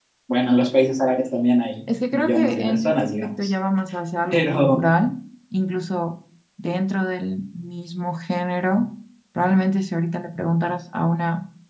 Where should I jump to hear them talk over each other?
2.1 s

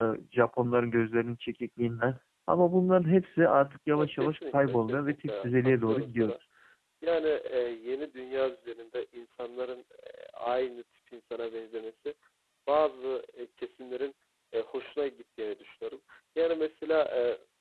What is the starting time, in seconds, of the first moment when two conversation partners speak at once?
4.0 s

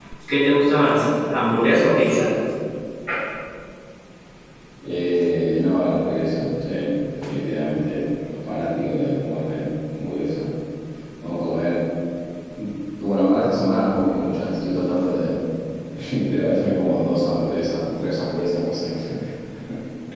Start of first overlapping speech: none

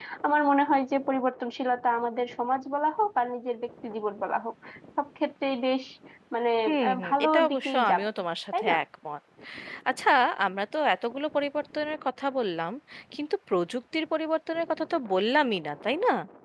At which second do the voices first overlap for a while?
6.9 s

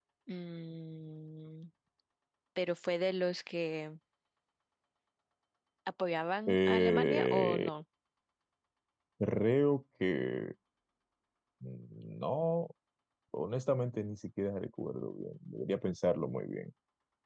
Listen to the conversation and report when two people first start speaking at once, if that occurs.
6.5 s

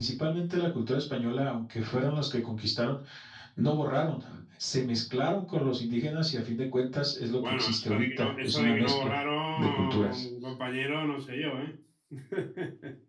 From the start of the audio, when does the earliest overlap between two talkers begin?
7.4 s

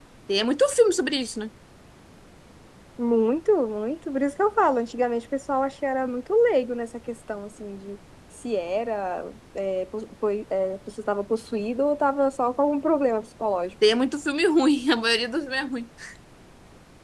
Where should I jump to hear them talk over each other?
none

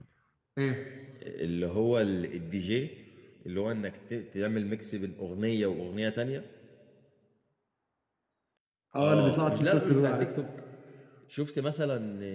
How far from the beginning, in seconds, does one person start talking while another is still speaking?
9.0 s

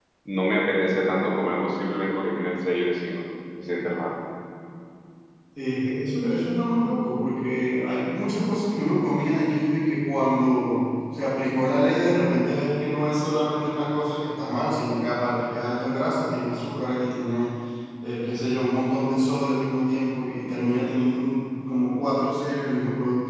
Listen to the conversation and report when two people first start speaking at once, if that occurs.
none

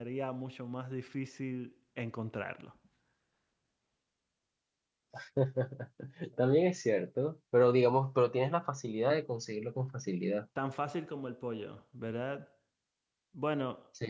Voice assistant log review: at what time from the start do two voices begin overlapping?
none

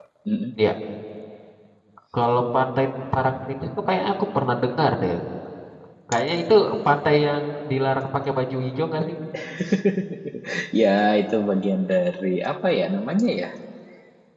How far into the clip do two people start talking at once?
none

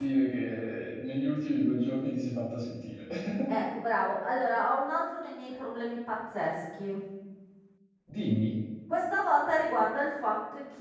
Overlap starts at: none

